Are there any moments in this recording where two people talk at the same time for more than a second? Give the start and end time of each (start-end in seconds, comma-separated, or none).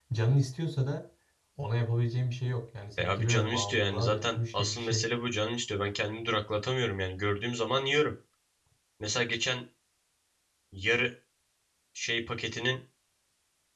3.0-5.0